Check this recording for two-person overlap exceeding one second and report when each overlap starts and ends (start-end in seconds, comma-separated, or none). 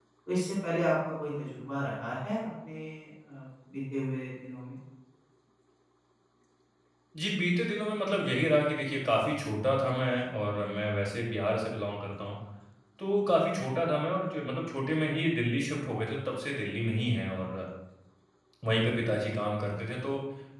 none